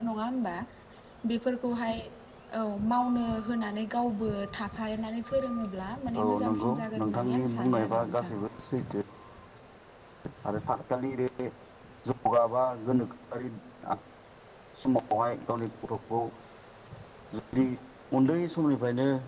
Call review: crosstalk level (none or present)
present